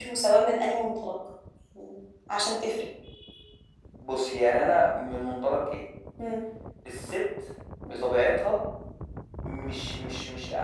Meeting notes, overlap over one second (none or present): none